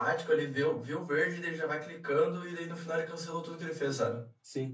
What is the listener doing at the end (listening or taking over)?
taking over